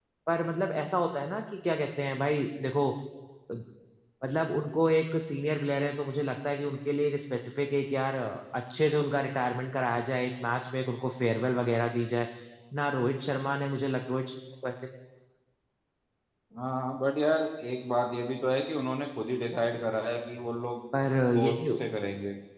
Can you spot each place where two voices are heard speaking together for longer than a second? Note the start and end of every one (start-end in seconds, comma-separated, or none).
none